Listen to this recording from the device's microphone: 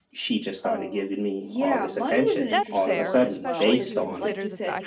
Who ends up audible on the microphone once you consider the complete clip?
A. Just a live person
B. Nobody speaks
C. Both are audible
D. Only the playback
C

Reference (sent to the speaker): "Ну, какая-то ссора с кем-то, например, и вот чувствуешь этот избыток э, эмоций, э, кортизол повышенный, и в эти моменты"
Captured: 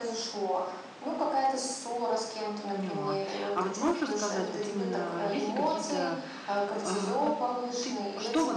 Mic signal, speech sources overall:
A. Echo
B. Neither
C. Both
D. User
C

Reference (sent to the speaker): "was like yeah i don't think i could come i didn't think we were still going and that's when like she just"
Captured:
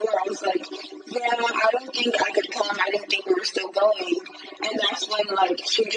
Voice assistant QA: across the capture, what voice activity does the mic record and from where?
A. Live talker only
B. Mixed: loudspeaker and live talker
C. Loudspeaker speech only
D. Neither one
C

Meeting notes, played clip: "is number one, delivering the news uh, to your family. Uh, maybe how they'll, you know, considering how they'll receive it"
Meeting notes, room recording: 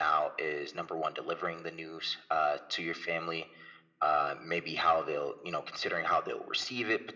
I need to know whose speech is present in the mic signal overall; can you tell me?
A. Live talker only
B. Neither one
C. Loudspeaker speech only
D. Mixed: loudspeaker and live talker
C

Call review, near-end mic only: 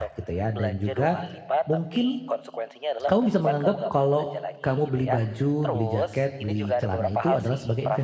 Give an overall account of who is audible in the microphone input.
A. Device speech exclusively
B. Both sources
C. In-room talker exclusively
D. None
B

